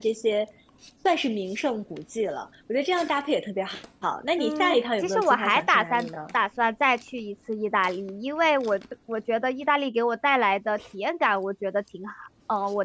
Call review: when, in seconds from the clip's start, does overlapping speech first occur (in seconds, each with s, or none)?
4.4 s